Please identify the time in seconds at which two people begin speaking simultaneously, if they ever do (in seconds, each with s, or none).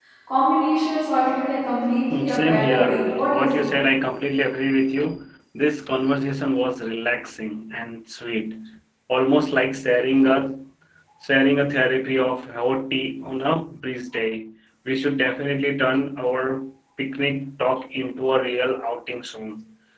2.1 s